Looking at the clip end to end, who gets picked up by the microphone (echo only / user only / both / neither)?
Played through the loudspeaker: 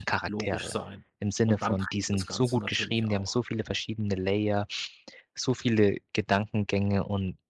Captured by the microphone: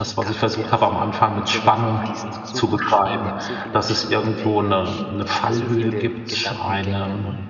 both